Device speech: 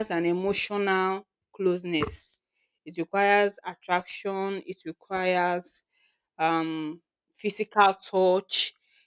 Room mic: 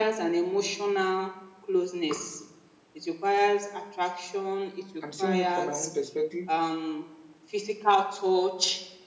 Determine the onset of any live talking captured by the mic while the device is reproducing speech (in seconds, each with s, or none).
5.0 s